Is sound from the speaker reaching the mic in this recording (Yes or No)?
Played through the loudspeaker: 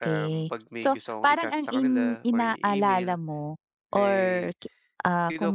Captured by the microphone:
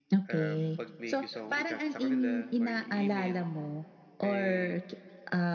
Yes